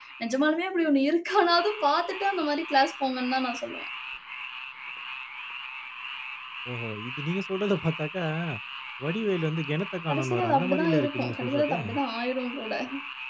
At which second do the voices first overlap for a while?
10.1 s

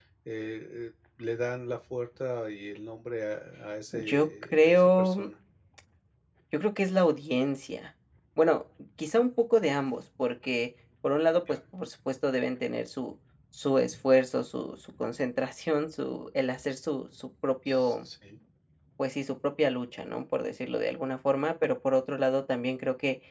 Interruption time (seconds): 3.9 s

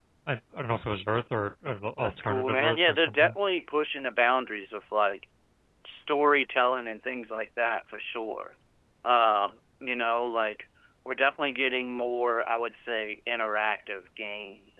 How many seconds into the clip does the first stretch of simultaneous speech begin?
2.0 s

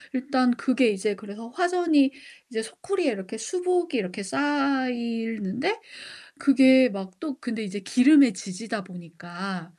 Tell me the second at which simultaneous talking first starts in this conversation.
none

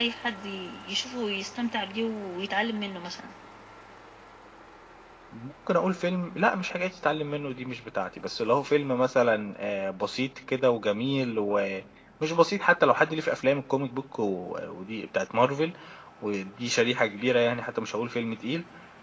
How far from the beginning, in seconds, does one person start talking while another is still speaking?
none

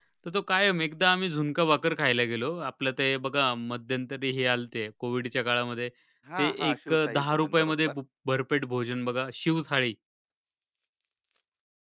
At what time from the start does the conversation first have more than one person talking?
6.4 s

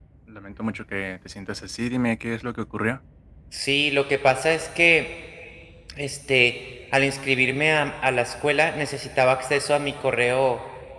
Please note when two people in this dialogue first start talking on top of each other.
none

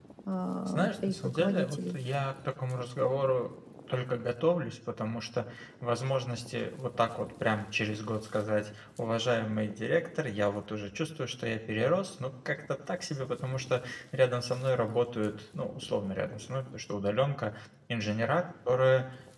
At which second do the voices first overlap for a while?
0.7 s

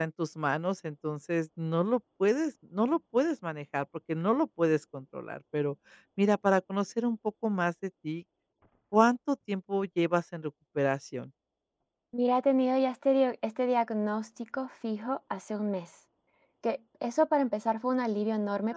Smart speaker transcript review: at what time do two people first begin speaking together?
none

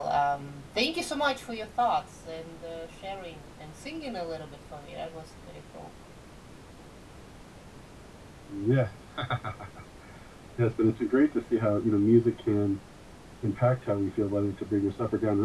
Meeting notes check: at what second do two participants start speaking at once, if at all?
none

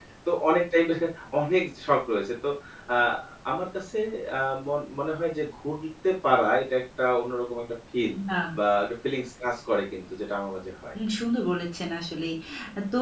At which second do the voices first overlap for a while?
none

